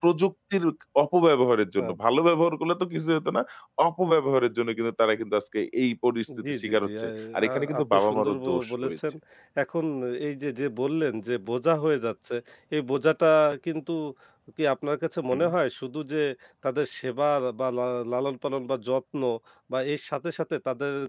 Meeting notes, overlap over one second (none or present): present